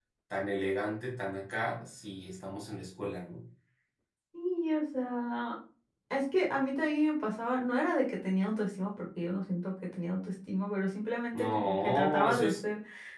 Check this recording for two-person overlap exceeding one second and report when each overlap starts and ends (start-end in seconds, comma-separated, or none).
11.3-12.5